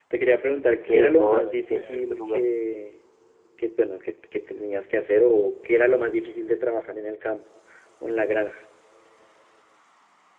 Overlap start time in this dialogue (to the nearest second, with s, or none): 1 s